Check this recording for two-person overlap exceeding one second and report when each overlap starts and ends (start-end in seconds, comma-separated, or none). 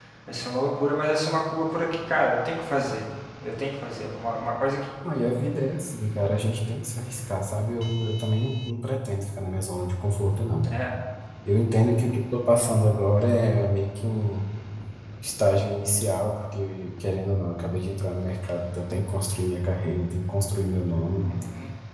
none